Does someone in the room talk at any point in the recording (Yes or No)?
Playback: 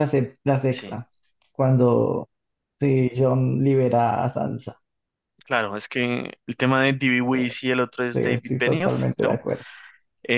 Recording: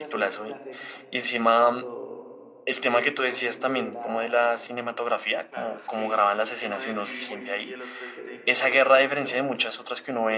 Yes